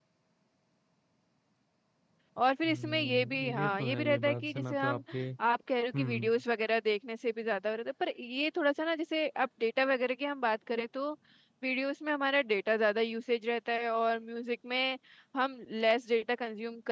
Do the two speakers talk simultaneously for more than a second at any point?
Yes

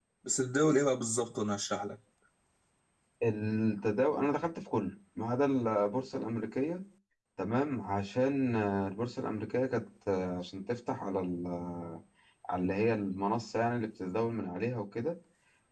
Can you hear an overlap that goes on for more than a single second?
No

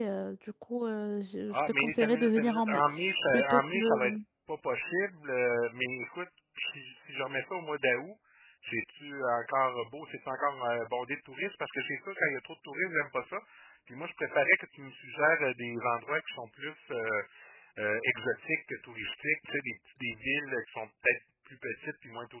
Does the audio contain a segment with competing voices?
Yes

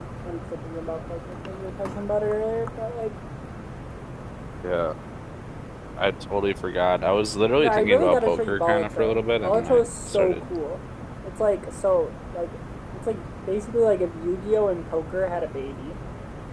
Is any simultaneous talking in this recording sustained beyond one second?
Yes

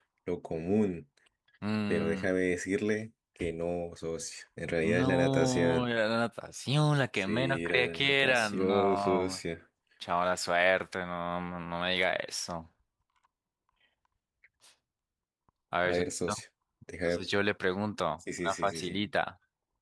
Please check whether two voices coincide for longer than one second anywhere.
Yes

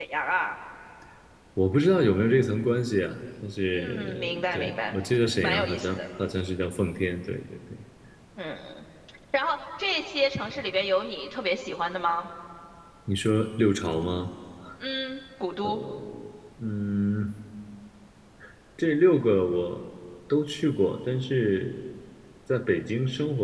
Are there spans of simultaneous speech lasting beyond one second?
Yes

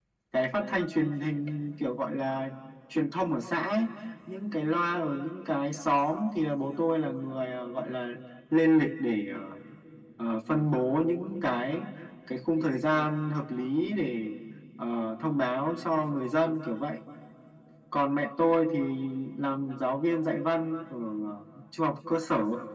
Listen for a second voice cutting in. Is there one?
No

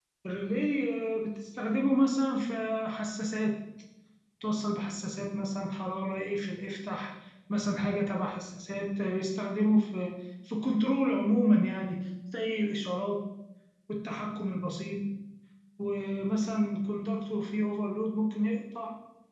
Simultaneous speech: No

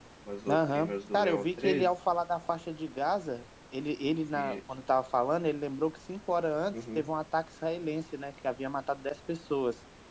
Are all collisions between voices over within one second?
No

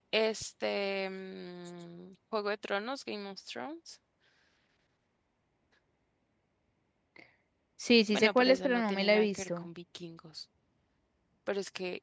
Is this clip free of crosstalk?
No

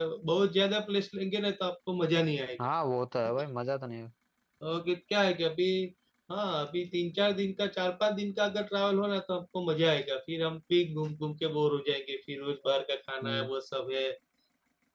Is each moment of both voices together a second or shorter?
Yes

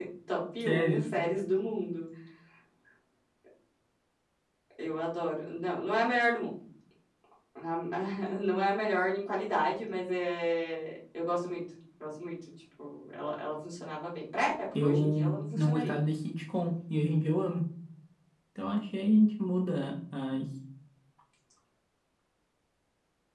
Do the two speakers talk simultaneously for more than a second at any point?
Yes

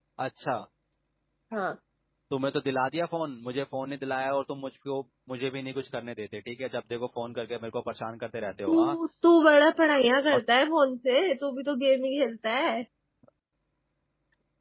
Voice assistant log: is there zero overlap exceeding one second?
Yes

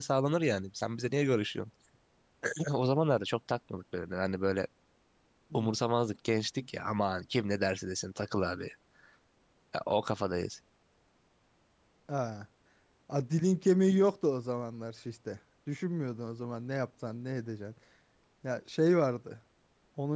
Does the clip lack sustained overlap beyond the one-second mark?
Yes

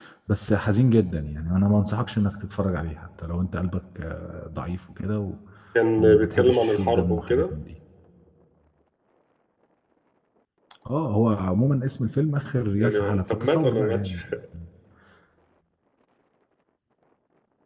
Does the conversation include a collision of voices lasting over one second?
Yes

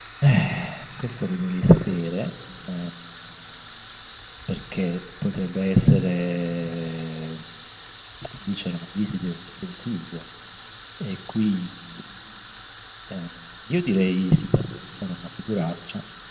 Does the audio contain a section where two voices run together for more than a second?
No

